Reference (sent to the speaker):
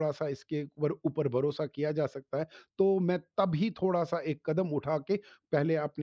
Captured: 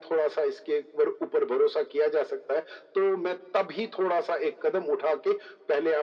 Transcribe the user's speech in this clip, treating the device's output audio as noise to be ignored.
none

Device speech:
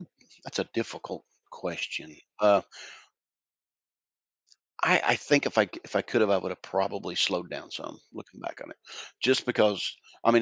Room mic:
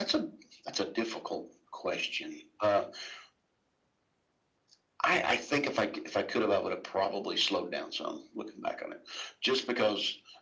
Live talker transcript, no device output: none

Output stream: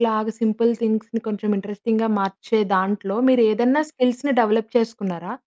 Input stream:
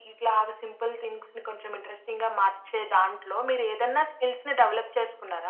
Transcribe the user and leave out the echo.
none

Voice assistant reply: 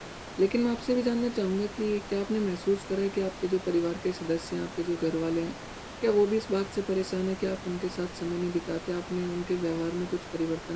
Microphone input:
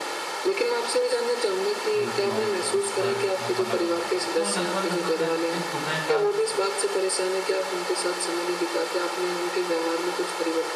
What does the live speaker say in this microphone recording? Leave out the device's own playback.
जो डिवाइस हैं उस पर मैं समय बिताता हूँ। तो लगभग-लगभग कह सकते हैं सुबह का

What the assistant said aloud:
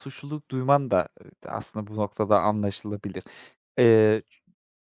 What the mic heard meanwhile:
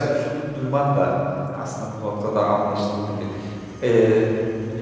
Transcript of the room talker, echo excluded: none

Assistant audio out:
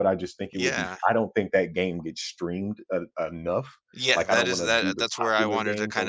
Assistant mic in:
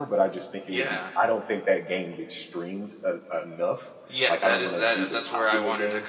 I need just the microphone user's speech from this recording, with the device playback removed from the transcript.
none

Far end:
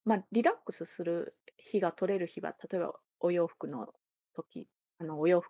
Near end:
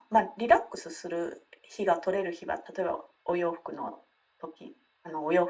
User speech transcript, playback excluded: none

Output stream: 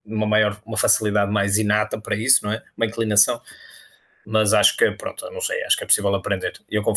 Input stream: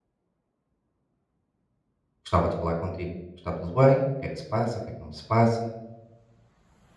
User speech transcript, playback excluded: gostava de falar contigo. Está tudo bem? O que é que se passa? O que é que não se passa?

